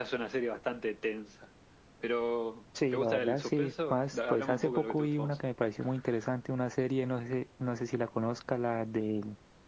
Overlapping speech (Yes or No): Yes